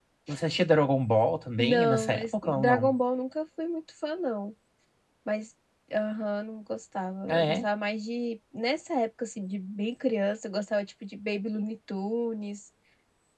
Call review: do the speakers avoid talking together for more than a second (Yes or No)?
No